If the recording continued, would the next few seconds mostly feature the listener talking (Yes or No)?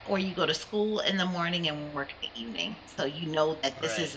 No